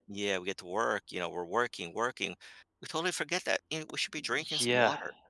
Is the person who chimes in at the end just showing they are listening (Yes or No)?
No